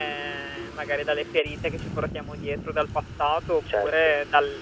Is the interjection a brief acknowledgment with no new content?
Yes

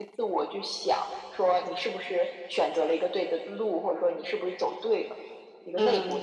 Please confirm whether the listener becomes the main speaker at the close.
Yes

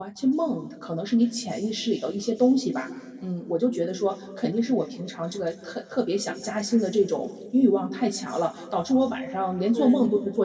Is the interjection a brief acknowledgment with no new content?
Yes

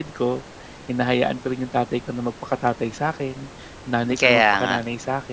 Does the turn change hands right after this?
No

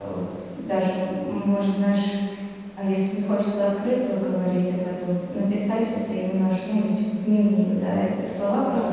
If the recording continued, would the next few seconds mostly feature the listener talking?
No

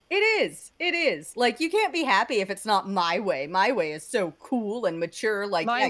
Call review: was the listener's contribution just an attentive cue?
No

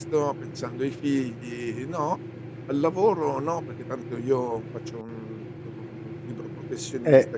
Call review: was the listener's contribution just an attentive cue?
No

